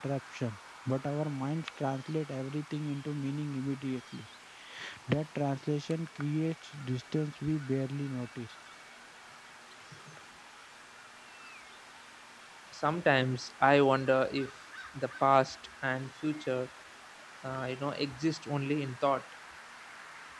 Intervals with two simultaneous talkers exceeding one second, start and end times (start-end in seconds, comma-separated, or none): none